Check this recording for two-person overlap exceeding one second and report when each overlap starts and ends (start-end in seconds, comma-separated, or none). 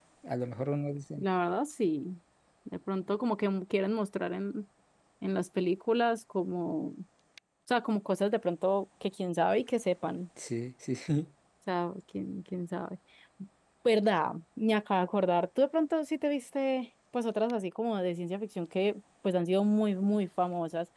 none